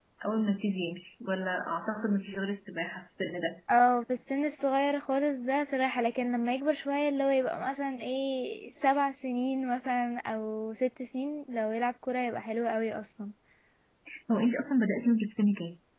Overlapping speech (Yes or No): No